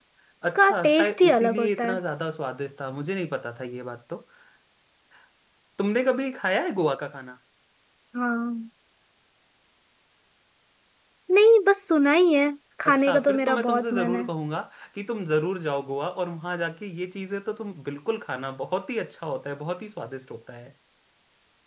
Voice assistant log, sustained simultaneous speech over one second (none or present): present